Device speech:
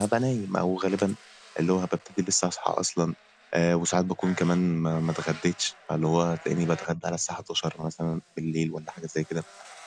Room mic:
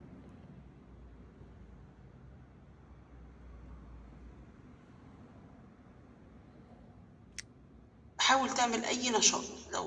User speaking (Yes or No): Yes